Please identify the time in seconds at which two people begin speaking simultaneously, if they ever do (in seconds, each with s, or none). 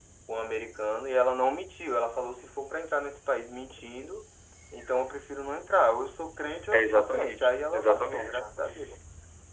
6.7 s